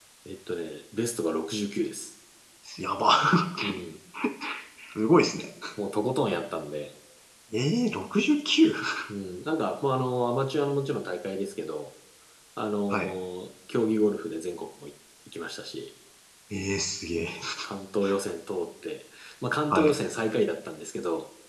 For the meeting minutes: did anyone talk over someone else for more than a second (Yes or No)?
No